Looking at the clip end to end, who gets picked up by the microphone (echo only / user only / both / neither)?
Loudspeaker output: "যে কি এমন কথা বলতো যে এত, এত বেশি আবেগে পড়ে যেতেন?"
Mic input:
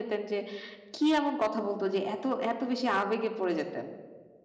echo only